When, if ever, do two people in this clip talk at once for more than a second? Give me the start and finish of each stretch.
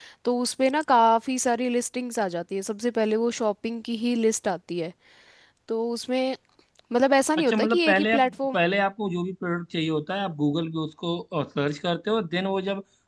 7.4-8.6

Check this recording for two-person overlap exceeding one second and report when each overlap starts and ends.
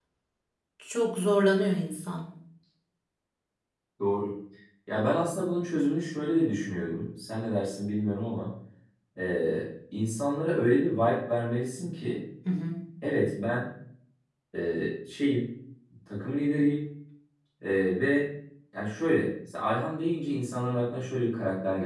none

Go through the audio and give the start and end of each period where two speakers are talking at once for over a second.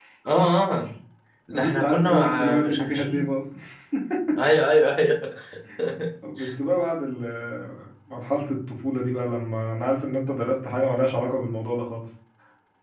1.5-3.3

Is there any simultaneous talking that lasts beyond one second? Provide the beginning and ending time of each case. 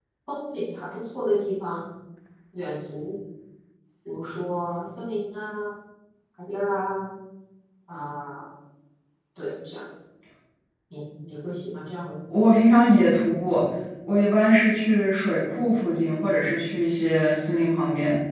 none

